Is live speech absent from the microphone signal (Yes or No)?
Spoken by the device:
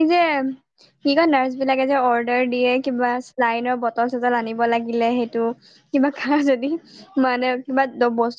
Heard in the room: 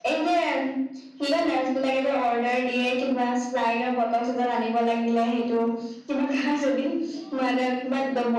Yes